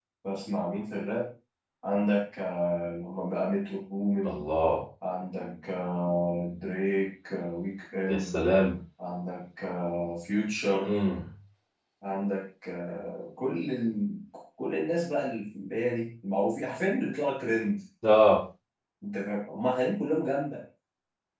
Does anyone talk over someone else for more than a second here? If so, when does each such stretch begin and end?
none

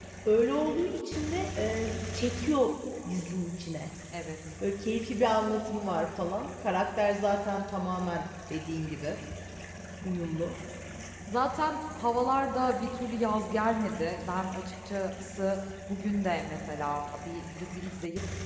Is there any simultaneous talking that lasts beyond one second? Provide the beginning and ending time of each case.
none

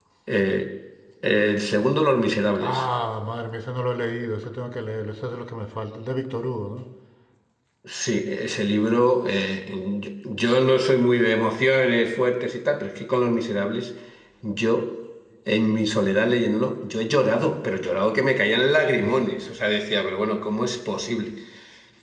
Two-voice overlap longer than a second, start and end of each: none

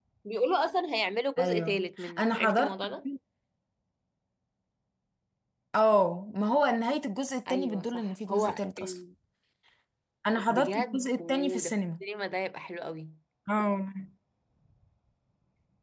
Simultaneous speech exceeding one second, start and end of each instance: 1.4-2.8, 7.5-9.0, 10.5-11.7

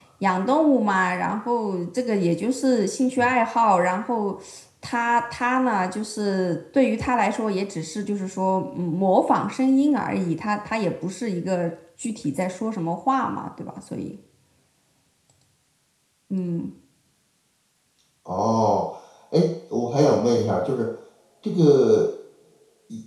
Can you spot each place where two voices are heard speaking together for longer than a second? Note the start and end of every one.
none

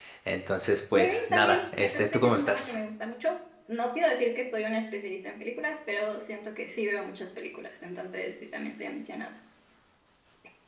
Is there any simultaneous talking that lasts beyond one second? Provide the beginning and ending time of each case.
0.9-2.7

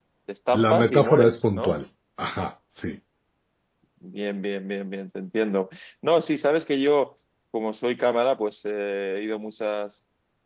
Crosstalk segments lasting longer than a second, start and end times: 0.5-1.7

